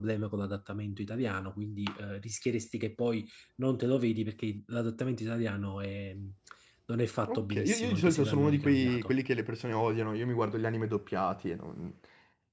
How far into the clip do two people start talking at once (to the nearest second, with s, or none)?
7 s